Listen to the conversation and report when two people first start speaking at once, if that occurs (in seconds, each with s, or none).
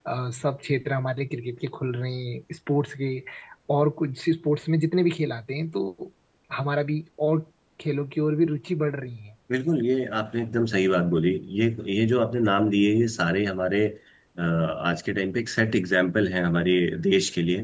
none